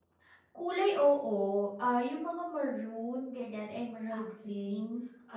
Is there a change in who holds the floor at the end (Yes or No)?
Yes